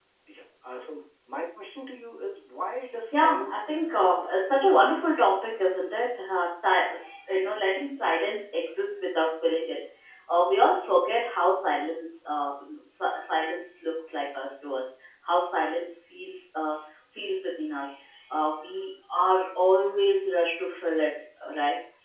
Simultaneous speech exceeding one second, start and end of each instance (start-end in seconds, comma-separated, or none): 3.1-4.3